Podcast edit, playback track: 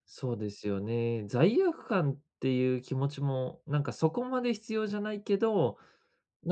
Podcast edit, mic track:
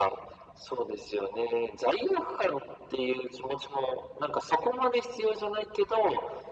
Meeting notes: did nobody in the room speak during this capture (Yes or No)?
Yes